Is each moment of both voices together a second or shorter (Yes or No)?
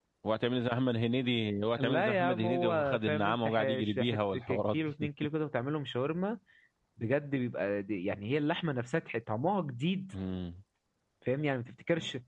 No